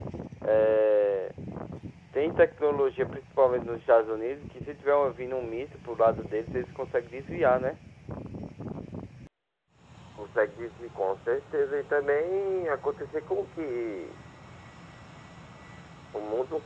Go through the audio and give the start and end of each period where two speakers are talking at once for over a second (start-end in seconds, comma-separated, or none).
none